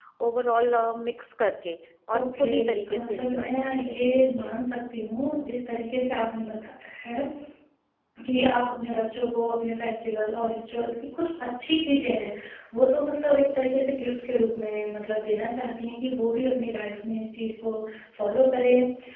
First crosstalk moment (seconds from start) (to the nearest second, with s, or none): 2 s